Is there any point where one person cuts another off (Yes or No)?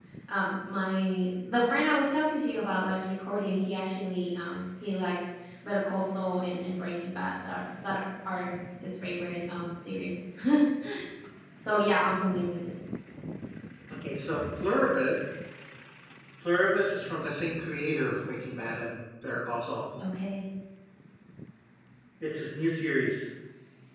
No